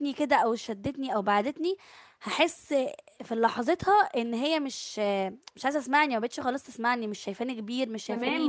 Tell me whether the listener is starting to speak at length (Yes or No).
Yes